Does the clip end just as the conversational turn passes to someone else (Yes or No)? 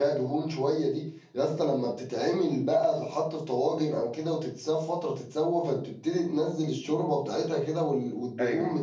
No